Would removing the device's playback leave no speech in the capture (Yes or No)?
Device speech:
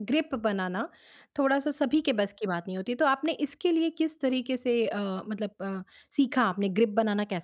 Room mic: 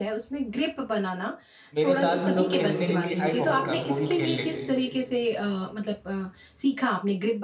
No